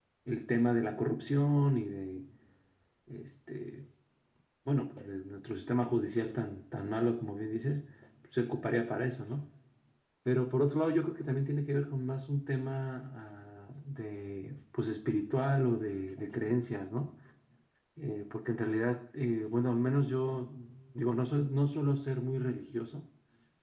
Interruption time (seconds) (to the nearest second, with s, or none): none